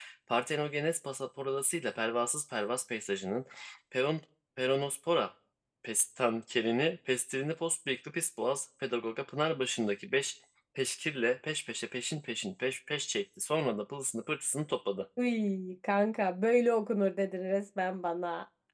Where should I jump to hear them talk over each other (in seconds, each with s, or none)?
none